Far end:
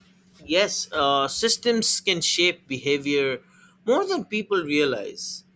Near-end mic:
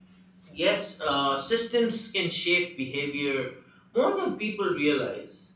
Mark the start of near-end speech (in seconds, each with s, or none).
none